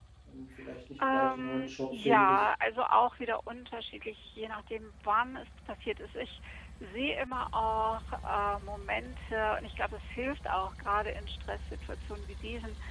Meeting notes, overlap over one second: present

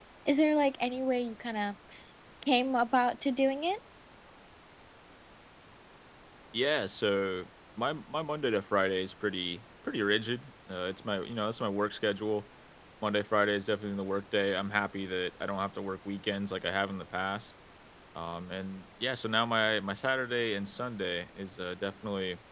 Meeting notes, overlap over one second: none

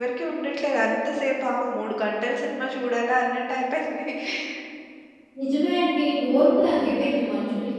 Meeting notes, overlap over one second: none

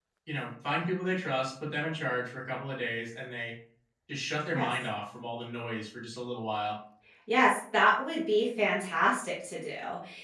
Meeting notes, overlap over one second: none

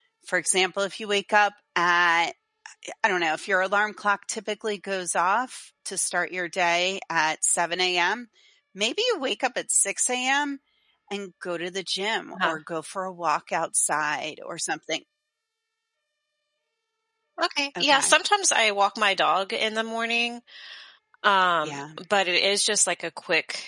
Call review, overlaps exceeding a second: none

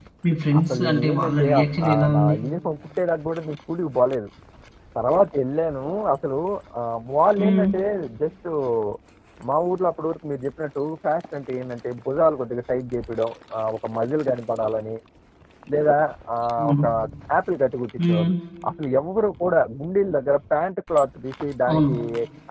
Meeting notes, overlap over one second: present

